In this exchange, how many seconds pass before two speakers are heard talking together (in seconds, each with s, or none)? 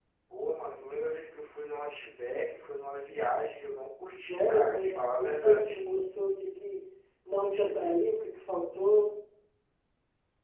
4.1 s